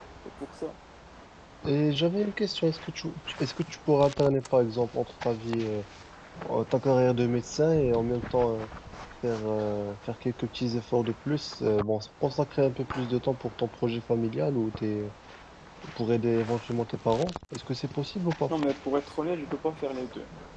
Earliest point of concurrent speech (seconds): none

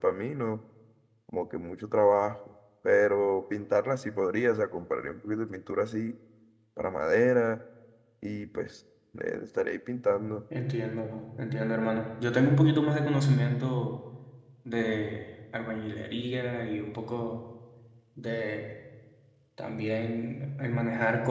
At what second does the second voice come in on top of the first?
none

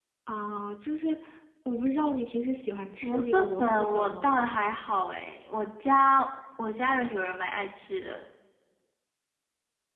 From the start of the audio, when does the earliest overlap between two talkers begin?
3 s

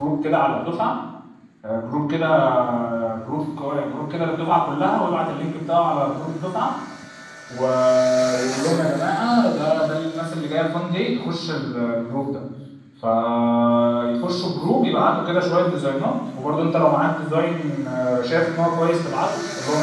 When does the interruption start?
none

